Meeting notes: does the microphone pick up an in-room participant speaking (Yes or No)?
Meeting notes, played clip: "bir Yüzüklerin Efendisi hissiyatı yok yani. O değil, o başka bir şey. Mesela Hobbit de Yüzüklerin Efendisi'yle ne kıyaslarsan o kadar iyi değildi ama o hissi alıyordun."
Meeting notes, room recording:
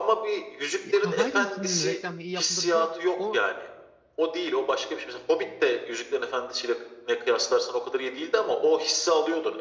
Yes